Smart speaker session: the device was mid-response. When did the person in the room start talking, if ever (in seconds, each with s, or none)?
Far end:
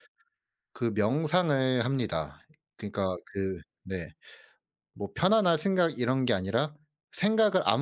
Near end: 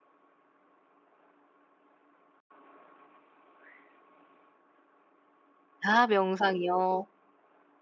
5.8 s